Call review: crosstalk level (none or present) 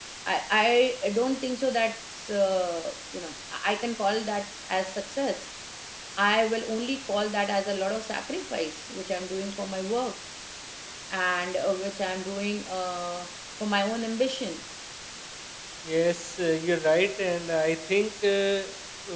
none